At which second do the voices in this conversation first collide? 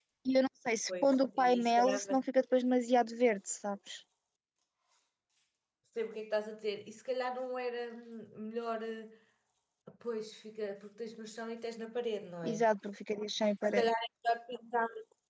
0.9 s

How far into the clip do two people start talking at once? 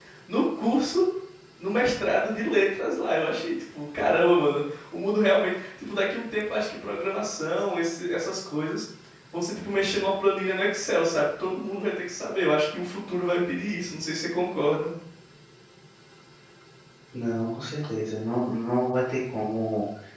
none

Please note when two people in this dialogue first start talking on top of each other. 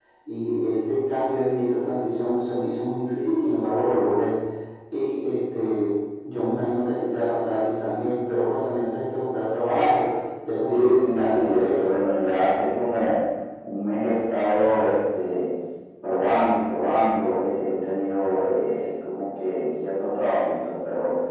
10.7 s

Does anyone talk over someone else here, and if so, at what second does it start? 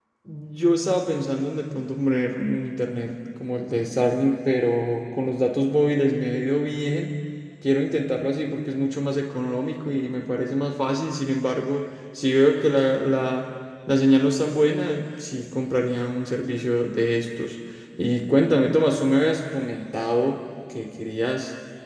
none

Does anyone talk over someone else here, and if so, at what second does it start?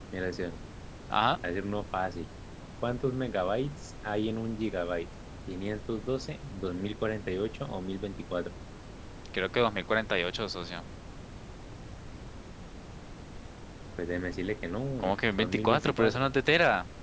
15.0 s

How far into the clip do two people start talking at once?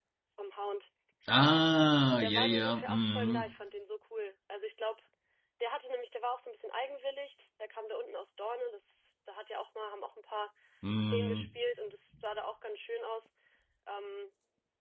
2.2 s

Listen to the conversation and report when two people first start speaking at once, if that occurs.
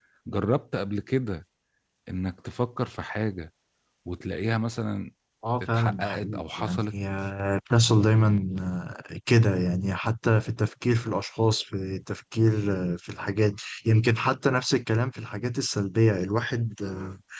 5.7 s

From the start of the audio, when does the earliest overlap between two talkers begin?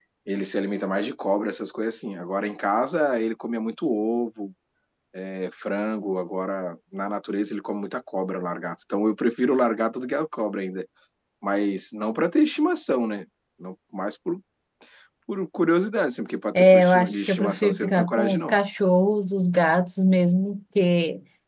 16.6 s

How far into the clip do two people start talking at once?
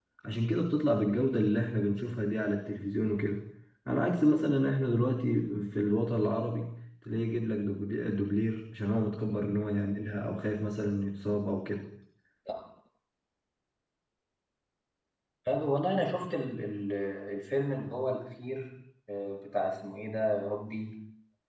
none

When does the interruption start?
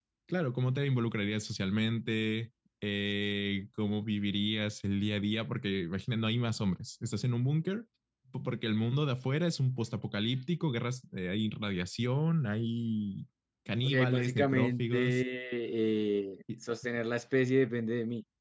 13.8 s

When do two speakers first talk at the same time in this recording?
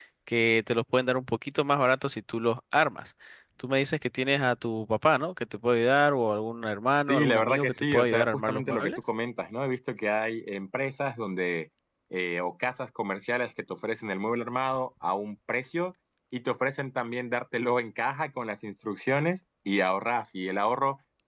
7.1 s

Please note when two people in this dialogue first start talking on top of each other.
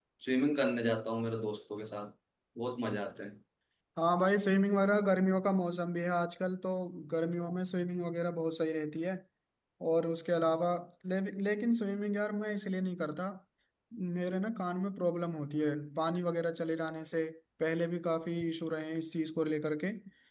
none

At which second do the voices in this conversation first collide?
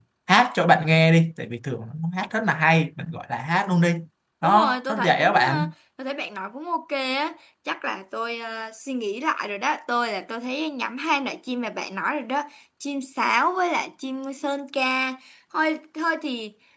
4.4 s

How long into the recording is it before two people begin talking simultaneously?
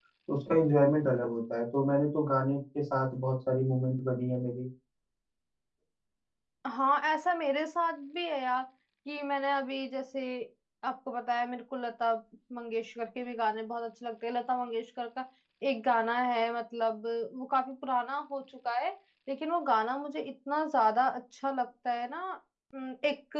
none

